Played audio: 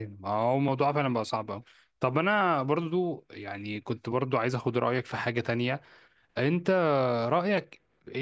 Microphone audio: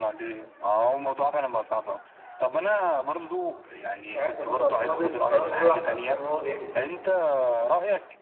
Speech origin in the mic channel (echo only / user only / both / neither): both